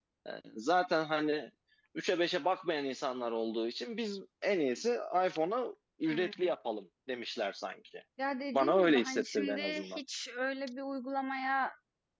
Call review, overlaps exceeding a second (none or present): present